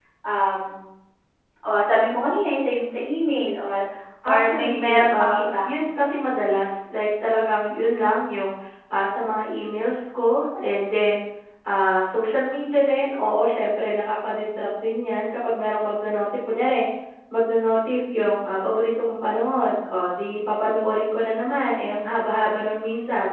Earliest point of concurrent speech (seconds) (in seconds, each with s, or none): 4.3 s